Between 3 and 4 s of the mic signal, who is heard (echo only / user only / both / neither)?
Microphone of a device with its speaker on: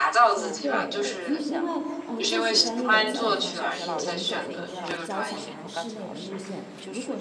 both